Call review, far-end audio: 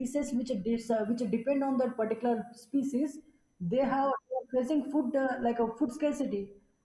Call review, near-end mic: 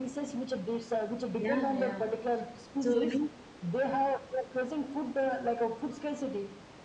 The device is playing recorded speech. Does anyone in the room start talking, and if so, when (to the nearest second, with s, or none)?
1 s